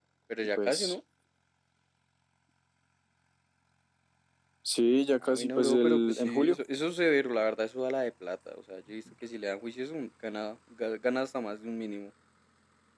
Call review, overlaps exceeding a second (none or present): present